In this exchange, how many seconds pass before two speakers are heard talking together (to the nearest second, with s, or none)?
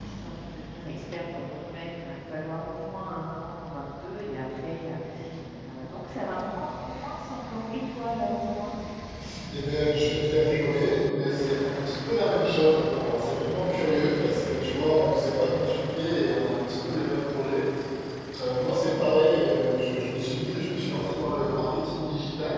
none